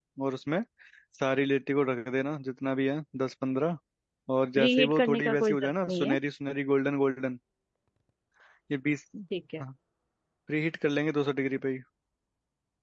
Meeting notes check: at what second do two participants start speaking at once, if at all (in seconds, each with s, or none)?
4.6 s